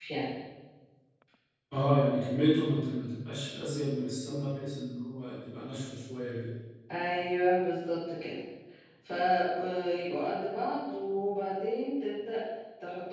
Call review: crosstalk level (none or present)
none